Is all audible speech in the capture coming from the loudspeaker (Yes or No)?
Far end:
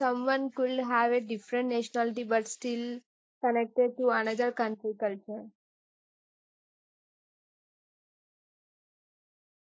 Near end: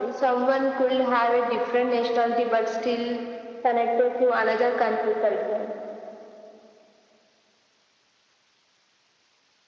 Yes